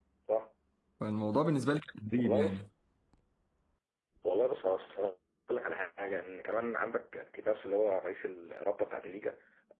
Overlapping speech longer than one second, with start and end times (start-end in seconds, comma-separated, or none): none